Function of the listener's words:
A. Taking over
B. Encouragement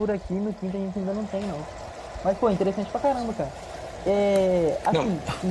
B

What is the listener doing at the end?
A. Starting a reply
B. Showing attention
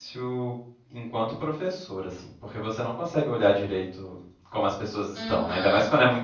A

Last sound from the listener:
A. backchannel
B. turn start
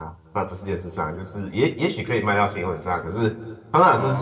A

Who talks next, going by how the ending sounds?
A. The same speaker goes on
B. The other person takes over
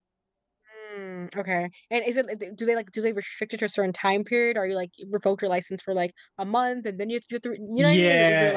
B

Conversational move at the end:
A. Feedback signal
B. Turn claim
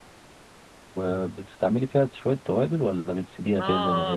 B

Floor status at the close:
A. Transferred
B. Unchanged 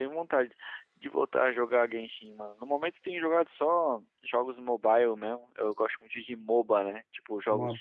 B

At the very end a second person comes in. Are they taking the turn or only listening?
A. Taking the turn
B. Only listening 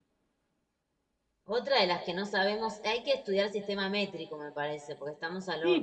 A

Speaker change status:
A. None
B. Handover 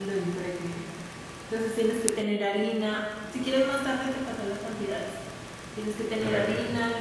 A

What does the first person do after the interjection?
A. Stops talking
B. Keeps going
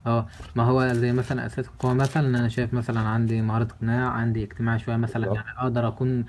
B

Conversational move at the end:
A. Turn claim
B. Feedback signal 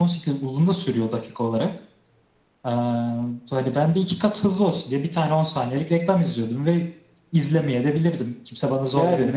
A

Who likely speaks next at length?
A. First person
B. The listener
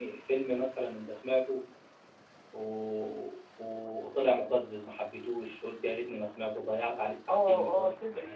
B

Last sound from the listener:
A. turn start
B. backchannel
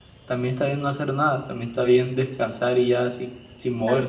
A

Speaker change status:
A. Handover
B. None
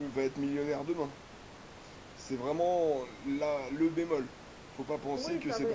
A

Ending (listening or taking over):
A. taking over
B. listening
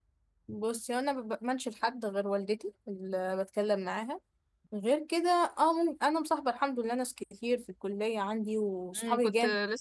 A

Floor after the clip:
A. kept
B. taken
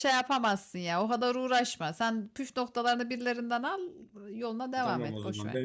B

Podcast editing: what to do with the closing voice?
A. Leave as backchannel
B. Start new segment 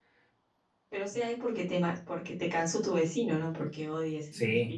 B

